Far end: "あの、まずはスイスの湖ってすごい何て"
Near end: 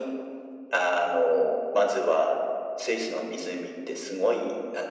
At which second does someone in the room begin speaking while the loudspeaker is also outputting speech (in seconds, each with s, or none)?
none